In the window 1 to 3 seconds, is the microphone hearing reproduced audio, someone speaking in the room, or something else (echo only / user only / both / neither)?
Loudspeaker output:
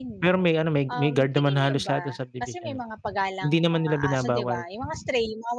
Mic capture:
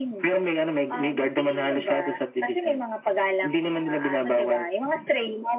echo only